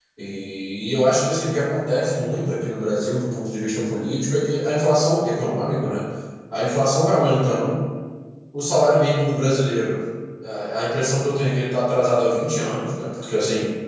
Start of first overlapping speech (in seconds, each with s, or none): none